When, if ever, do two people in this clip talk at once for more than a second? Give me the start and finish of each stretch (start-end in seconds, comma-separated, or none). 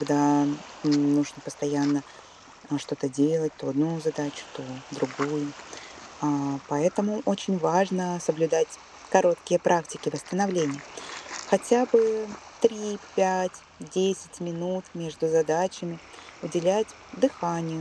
none